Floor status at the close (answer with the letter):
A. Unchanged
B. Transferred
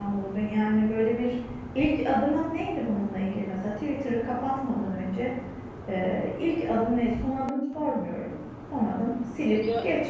A